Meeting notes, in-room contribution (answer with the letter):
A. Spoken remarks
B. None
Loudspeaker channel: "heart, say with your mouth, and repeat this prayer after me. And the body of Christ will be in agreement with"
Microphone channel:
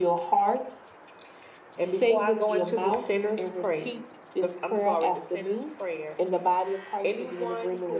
A